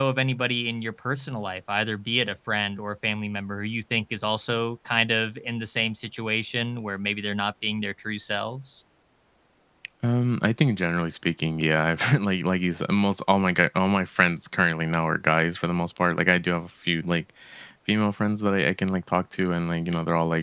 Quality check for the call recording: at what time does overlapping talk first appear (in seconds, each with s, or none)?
none